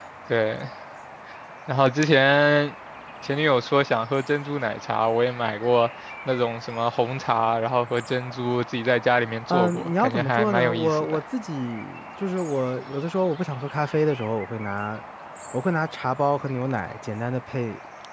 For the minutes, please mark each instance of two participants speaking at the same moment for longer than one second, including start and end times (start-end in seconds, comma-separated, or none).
9.5-11.2